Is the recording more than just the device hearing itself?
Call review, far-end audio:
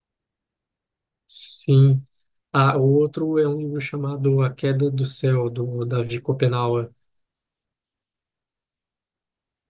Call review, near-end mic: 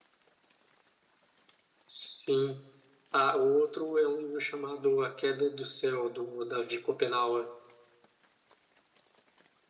No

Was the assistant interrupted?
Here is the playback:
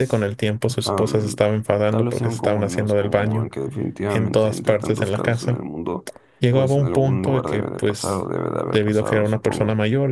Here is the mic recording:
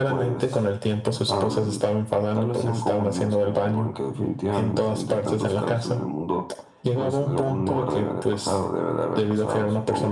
No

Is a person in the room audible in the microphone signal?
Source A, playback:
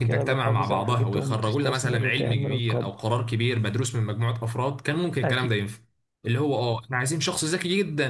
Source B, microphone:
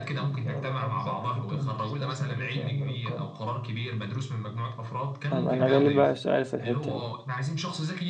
Yes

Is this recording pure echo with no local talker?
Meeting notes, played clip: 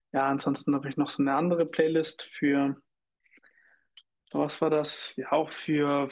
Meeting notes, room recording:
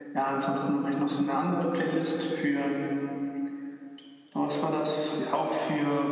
Yes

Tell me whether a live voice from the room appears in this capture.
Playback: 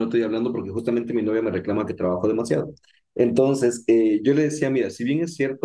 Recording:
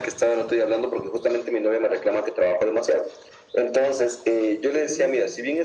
Yes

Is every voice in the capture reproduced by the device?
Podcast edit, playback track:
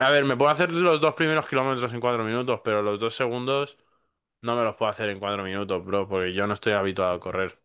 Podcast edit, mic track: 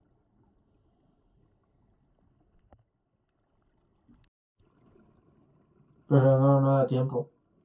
No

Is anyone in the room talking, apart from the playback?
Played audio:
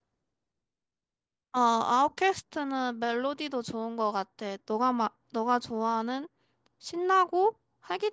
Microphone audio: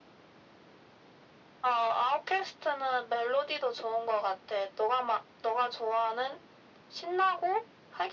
No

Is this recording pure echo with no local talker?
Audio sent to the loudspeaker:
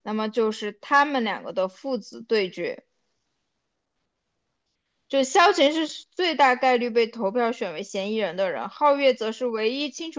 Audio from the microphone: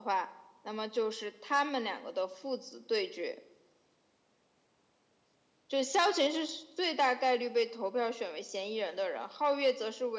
Yes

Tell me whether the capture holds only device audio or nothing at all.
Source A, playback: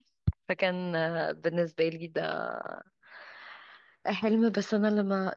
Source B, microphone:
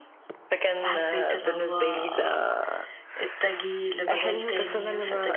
No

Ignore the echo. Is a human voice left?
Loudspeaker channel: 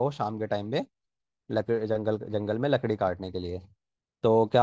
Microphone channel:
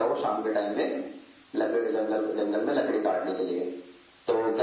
No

